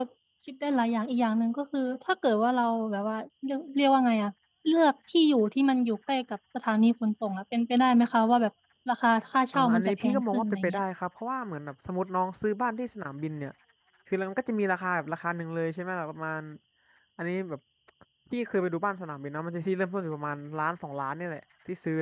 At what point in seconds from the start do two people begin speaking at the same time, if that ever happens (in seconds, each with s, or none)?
9.5 s